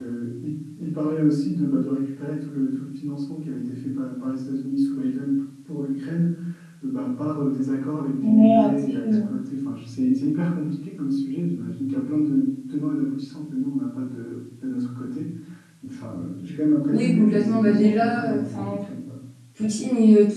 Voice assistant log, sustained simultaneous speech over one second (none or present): present